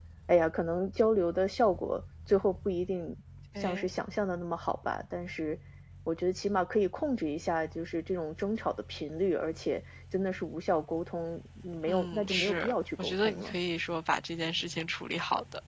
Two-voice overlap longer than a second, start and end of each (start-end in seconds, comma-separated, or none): 11.9-13.5